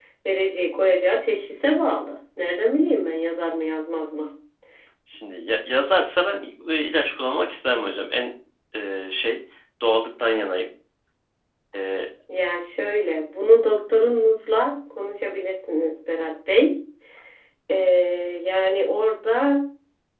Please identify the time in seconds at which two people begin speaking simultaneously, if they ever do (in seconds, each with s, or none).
none